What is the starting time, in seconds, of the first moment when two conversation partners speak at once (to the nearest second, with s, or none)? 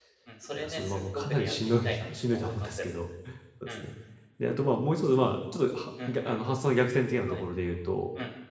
1 s